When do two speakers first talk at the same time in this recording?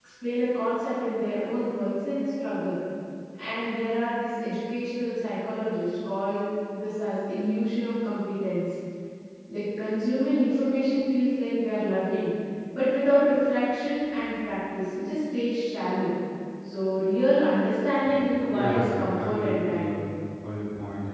18.5 s

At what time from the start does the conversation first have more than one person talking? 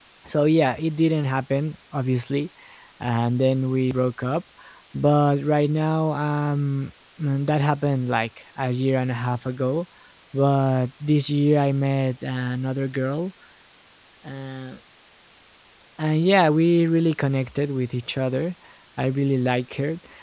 none

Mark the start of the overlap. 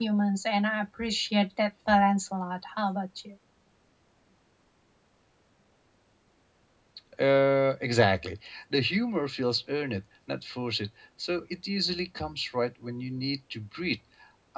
none

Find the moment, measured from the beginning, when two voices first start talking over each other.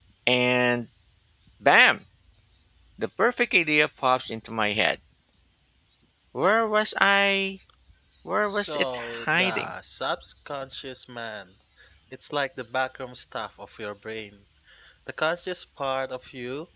8.4 s

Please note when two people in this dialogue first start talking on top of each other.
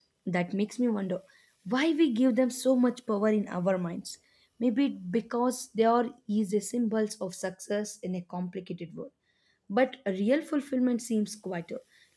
none

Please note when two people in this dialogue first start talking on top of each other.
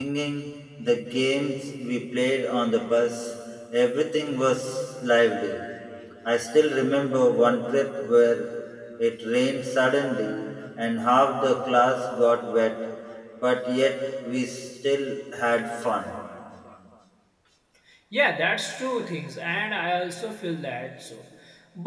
none

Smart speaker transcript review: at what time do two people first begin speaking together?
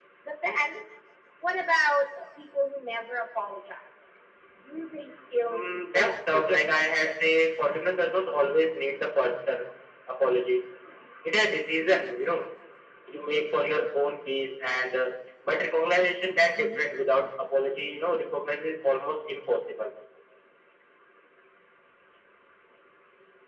5.5 s

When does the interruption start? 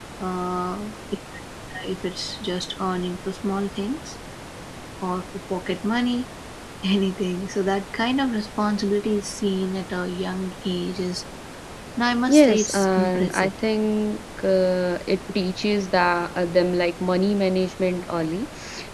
12.3 s

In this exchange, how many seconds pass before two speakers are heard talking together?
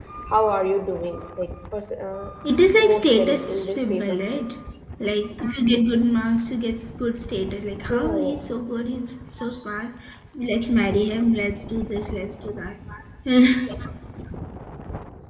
2.8 s

